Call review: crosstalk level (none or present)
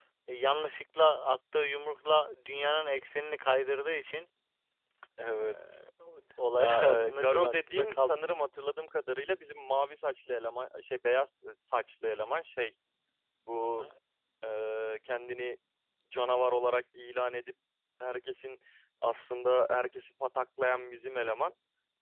present